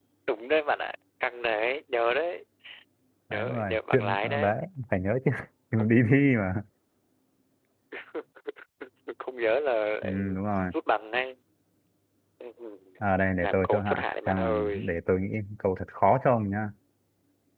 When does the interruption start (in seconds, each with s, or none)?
3.3 s